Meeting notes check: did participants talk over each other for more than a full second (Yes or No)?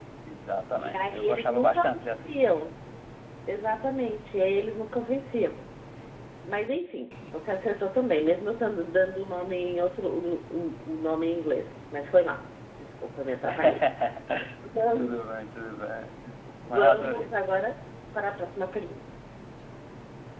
Yes